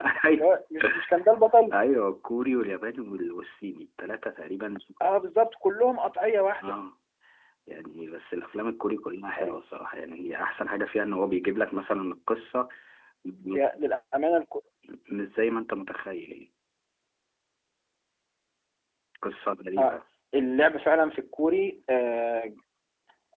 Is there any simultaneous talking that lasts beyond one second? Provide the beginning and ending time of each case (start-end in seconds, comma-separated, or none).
none